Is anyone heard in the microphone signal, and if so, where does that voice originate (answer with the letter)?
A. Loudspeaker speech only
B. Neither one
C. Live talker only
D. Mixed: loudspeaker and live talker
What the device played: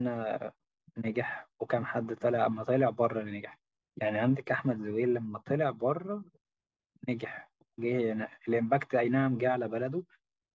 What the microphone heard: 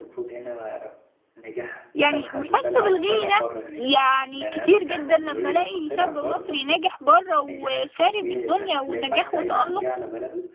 D